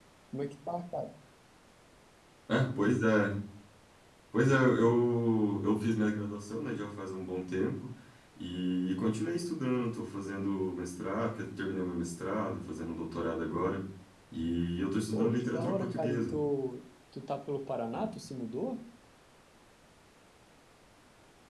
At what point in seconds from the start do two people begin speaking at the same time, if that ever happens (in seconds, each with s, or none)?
15.1 s